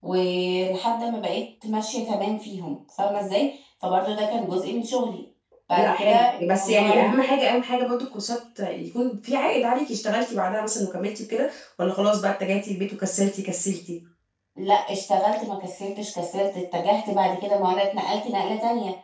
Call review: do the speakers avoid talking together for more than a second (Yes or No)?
No